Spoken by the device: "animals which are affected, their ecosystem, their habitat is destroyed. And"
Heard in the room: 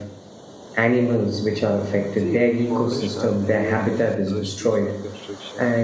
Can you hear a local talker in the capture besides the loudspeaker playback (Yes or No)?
Yes